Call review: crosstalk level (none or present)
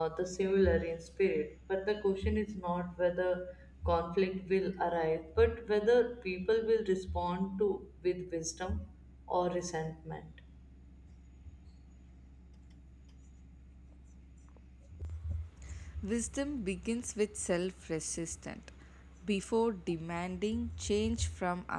none